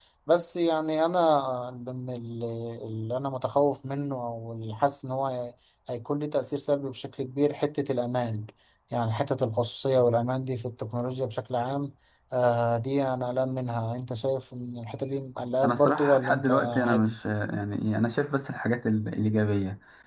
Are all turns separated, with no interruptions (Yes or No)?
No